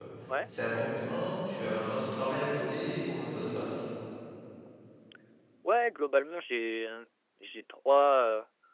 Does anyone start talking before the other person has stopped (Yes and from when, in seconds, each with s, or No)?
No